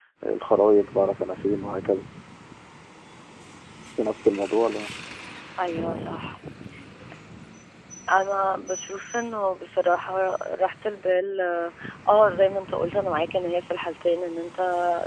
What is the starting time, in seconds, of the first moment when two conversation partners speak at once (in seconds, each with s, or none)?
none